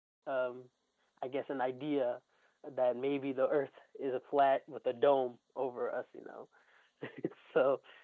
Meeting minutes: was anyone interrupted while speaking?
No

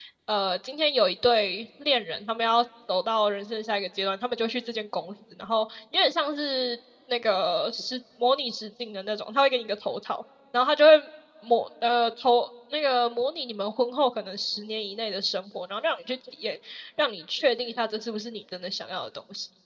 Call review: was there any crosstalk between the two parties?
No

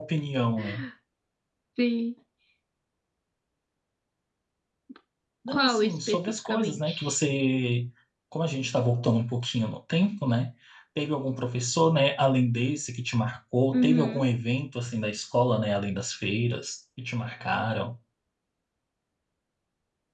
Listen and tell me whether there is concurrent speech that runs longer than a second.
Yes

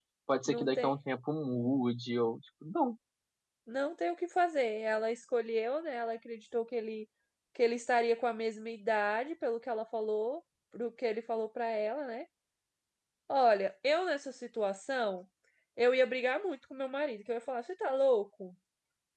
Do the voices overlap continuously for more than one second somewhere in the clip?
No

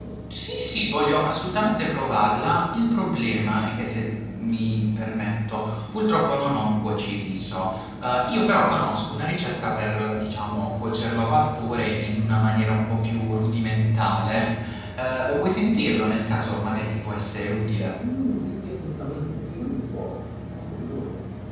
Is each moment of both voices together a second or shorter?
Yes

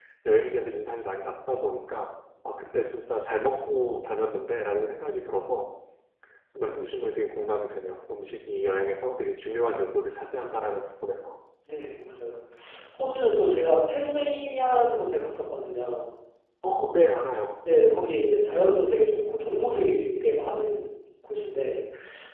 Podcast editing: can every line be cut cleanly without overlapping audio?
Yes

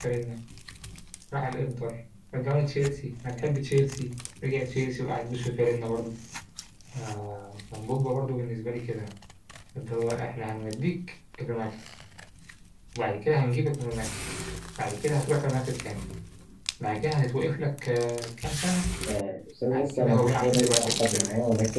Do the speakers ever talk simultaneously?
Yes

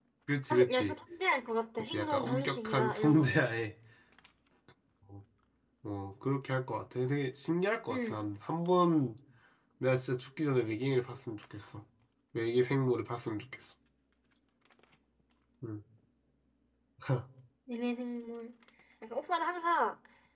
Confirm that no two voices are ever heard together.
No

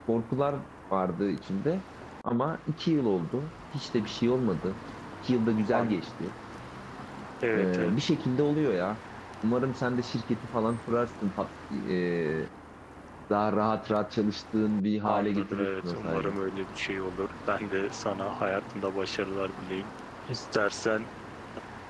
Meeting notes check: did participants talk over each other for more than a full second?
Yes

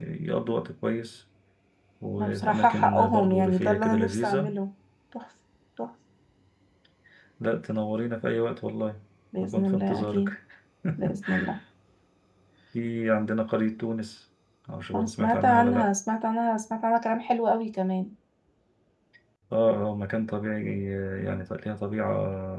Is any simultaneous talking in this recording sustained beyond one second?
Yes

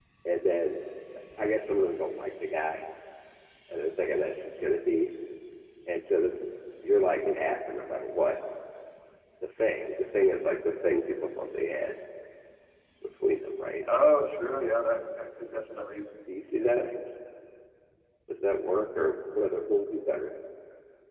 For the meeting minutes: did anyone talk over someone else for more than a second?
No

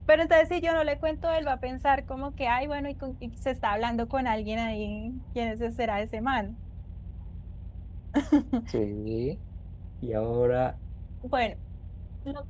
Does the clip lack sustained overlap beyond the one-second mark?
Yes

